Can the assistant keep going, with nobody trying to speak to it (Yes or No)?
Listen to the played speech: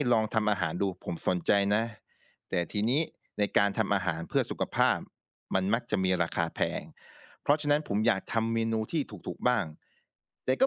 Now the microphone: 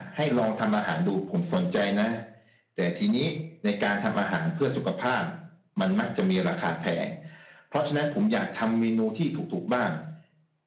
Yes